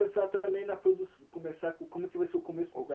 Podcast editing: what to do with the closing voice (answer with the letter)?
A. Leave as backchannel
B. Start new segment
B